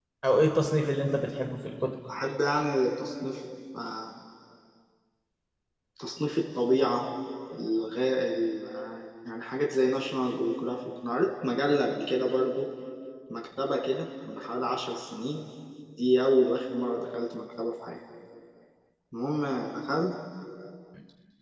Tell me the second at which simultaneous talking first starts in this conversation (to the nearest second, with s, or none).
none